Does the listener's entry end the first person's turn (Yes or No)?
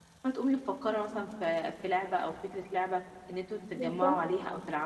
No